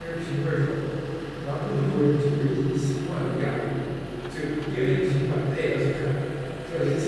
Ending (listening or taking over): listening